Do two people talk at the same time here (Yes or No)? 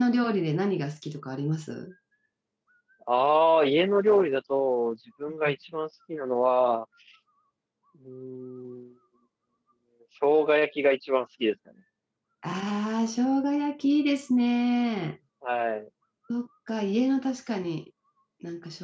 No